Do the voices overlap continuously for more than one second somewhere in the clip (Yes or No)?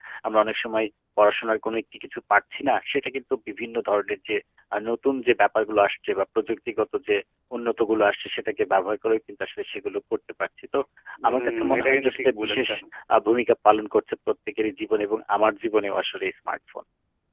Yes